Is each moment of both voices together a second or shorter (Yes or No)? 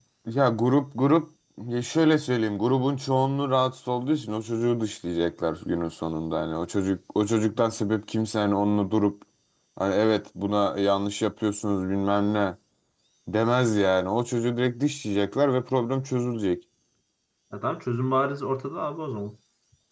Yes